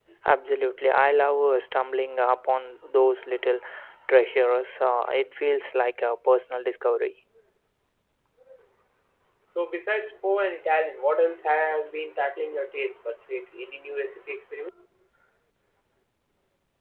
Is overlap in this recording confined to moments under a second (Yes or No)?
Yes